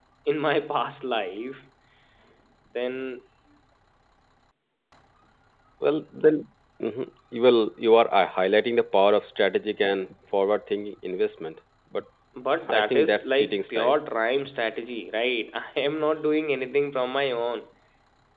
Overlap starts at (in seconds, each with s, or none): 12.7 s